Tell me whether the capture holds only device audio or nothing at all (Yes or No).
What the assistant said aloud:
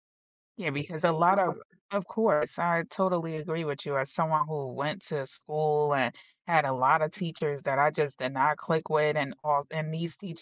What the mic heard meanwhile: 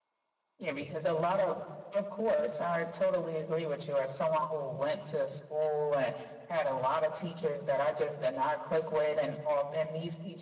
Yes